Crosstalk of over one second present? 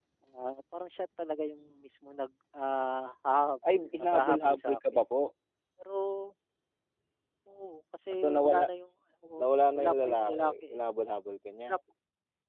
Yes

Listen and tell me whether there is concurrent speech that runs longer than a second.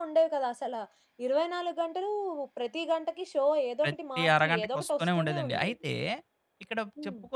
Yes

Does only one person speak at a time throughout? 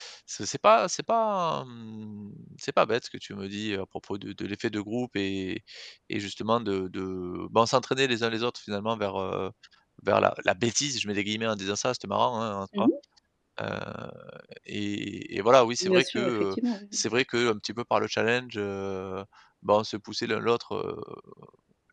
No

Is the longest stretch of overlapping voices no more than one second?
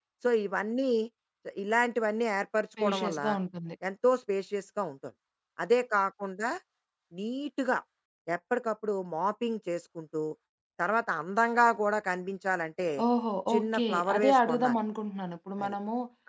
No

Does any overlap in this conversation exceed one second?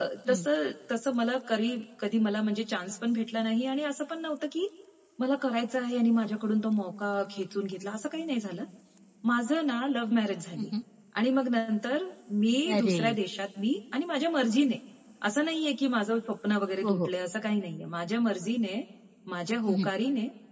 No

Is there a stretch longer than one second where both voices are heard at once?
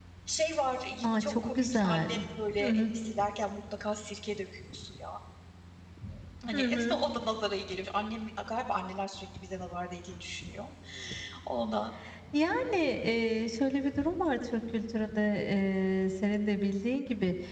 Yes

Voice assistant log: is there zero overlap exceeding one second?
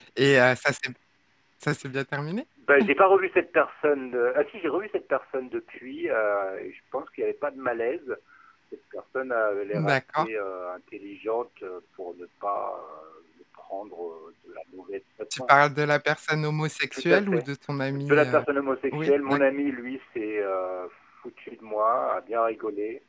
Yes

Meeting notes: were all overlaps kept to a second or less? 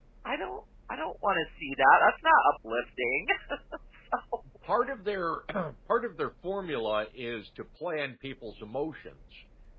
Yes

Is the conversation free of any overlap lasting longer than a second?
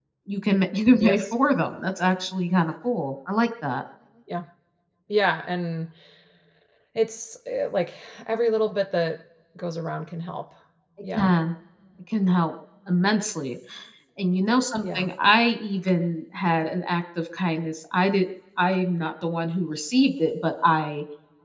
Yes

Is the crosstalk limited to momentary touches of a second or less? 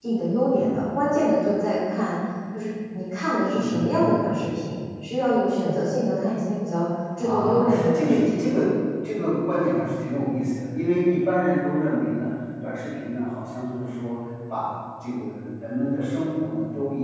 No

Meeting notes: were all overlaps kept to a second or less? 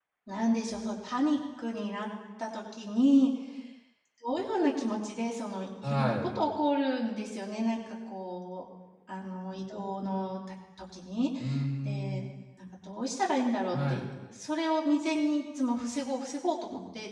Yes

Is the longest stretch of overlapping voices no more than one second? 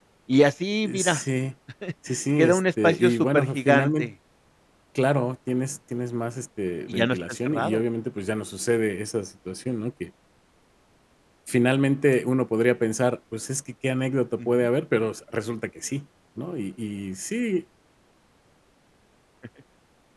No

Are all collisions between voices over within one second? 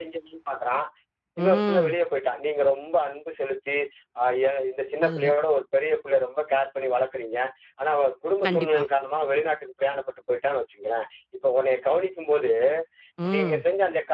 Yes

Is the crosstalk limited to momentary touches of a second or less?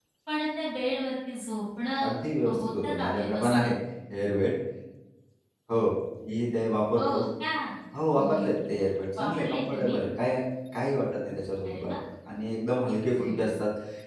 No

